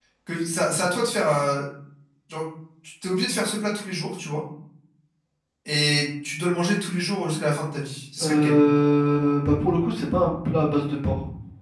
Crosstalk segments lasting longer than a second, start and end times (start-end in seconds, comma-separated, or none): none